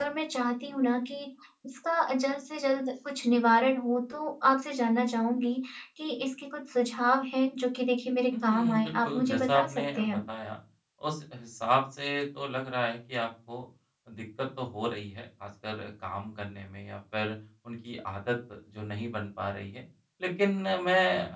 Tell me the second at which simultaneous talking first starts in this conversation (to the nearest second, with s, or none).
8 s